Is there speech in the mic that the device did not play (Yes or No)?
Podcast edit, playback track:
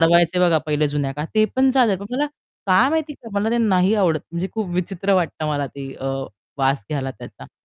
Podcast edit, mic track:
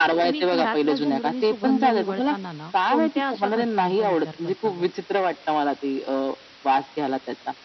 Yes